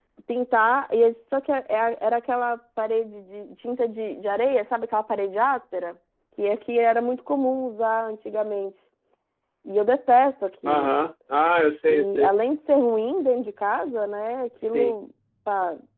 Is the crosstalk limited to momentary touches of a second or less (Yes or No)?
Yes